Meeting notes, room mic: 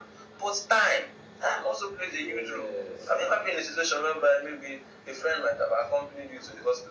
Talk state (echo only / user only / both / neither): both